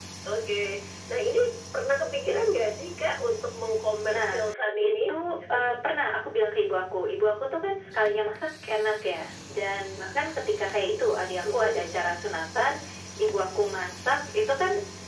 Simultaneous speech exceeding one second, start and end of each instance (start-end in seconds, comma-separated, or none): none